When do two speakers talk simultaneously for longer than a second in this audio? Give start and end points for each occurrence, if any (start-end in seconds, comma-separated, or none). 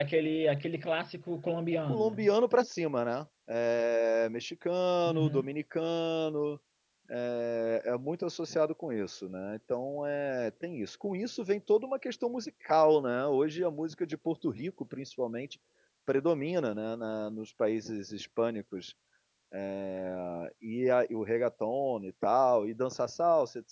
none